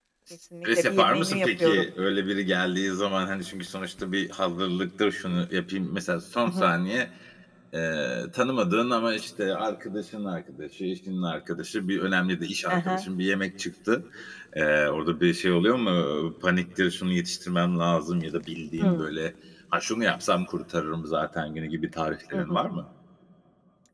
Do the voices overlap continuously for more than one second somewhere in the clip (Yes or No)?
Yes